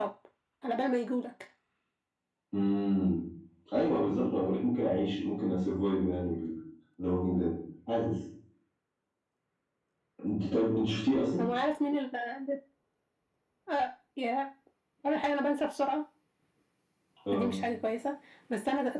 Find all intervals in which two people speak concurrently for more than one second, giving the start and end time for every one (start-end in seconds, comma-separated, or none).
none